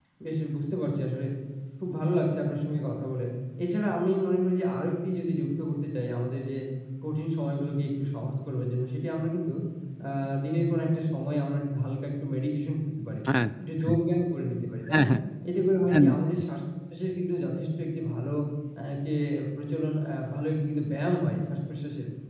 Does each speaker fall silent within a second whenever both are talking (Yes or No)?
Yes